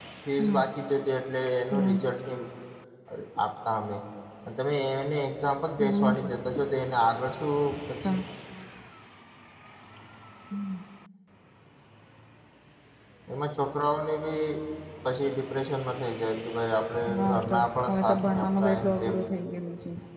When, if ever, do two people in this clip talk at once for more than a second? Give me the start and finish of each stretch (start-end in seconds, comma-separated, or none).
17.2-19.2